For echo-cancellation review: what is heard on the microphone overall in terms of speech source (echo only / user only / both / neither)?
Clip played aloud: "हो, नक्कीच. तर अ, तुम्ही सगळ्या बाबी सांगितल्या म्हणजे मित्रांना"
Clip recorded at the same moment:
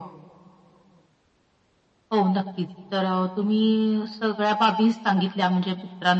echo only